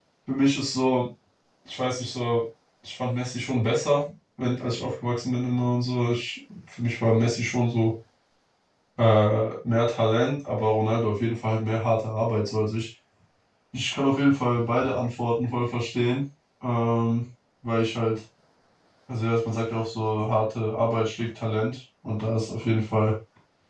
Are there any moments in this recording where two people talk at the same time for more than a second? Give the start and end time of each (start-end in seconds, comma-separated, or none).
none